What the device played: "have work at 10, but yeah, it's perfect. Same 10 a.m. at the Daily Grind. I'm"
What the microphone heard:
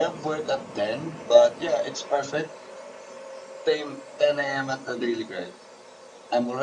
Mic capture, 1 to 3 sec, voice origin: echo only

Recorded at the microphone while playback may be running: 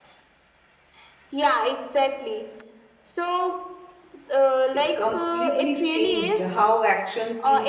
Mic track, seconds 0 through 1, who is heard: neither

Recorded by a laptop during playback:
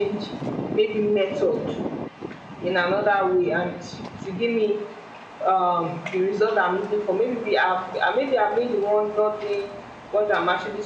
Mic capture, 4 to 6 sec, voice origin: echo only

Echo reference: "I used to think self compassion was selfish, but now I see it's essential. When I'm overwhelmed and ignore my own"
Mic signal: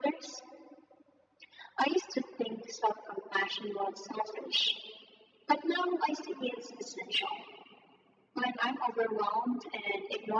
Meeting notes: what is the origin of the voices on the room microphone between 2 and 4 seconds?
echo only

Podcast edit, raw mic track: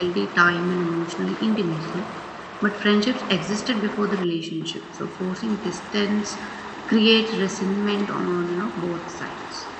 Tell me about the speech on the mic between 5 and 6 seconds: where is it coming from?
user only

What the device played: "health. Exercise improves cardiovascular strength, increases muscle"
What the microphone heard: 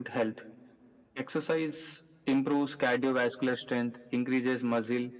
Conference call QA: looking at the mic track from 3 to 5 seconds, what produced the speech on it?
echo only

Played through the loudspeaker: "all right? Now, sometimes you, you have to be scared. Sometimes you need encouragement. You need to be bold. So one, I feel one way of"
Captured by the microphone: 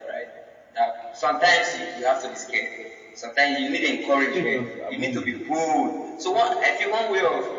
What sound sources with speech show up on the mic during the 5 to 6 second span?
both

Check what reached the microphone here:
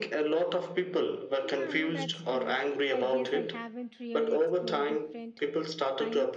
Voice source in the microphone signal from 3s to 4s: both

